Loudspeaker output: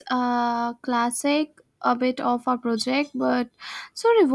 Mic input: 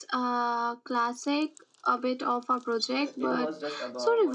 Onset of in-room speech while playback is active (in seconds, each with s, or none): 3.0 s